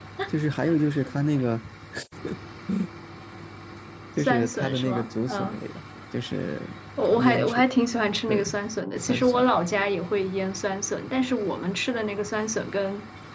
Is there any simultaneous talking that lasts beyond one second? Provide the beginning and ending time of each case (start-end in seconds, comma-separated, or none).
4.2-5.6